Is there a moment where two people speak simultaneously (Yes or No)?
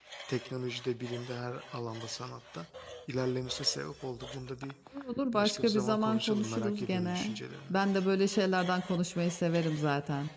Yes